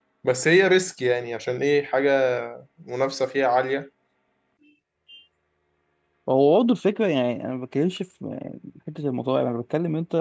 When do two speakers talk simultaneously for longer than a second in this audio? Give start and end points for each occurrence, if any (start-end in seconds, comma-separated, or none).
none